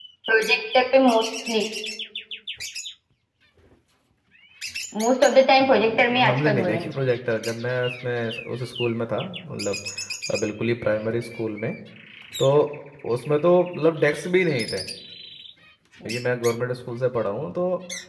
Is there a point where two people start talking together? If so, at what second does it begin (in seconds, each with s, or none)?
5.6 s